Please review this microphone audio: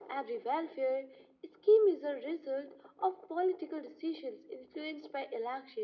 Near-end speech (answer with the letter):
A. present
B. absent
B